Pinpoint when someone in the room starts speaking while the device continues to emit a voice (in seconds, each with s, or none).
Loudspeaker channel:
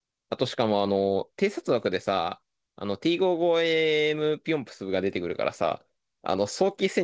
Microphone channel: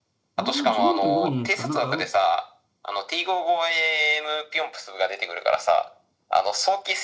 0.3 s